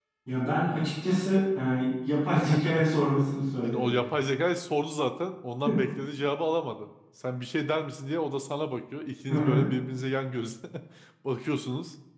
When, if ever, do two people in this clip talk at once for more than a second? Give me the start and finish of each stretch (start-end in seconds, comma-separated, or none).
none